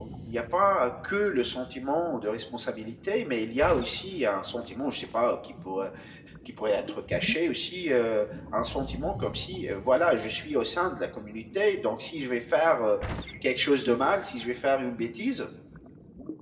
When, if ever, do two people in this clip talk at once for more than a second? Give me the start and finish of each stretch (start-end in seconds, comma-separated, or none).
none